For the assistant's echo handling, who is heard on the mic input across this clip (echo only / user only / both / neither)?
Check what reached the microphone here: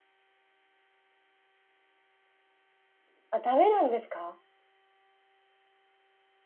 user only